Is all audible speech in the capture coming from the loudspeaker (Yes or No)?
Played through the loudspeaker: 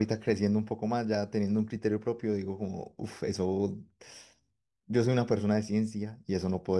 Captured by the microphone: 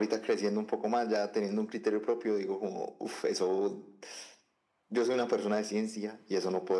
Yes